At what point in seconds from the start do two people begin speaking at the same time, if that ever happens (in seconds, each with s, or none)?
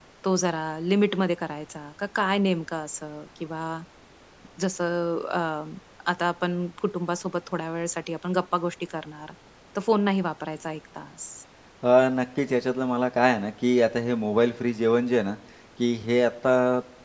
none